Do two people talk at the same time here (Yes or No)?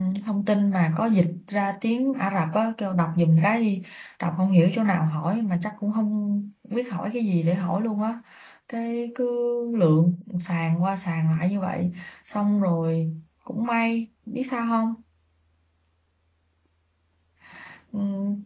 No